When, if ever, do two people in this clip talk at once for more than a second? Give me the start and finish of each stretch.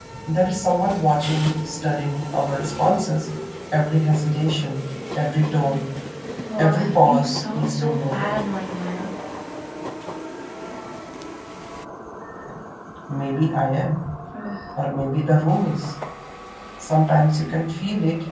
6.6-8.4

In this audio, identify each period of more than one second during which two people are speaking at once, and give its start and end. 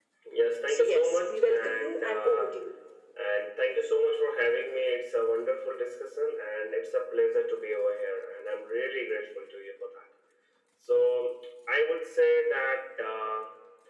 0.7-2.6

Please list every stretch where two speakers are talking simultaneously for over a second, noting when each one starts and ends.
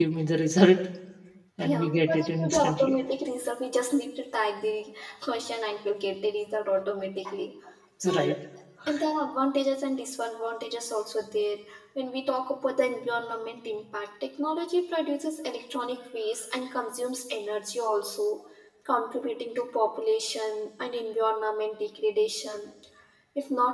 1.6-3.0

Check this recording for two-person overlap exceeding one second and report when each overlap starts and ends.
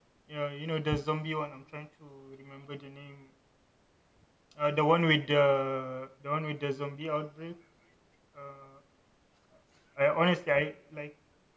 none

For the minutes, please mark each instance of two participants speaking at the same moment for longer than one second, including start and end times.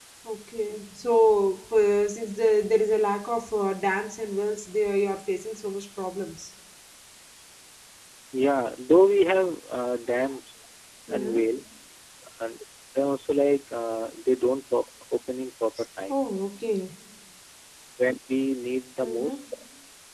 none

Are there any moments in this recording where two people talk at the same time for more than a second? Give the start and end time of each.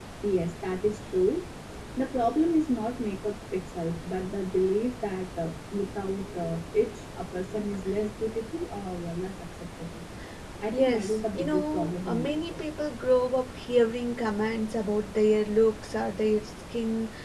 10.7-12.6

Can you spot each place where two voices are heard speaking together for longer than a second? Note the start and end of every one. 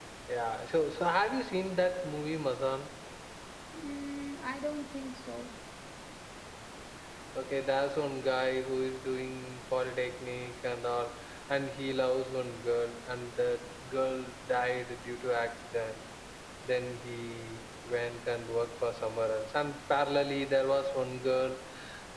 none

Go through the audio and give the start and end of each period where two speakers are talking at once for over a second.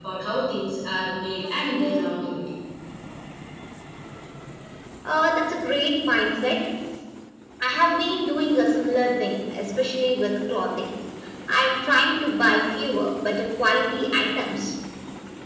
none

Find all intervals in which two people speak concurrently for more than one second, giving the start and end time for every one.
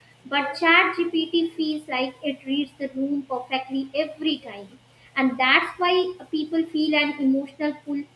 none

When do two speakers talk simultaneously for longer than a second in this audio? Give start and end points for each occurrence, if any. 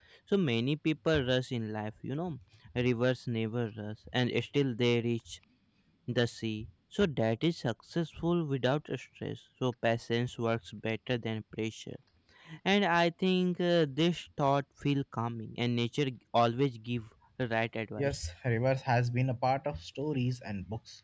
none

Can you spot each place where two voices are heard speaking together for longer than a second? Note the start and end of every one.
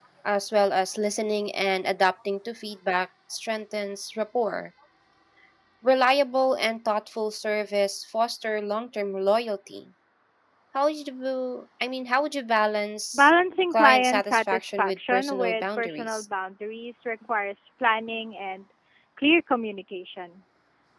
13.7-16.2

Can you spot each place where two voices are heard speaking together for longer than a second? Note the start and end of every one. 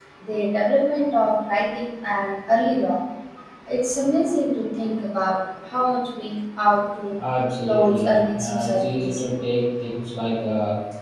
7.6-9.2

